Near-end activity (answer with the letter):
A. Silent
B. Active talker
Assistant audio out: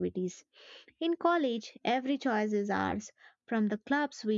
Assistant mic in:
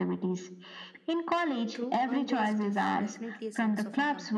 B